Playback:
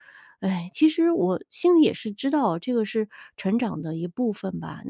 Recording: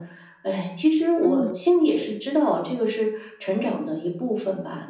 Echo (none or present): present